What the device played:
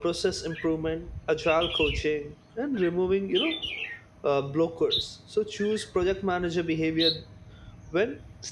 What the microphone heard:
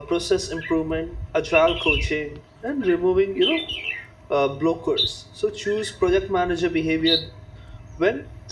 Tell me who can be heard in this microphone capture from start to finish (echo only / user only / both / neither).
echo only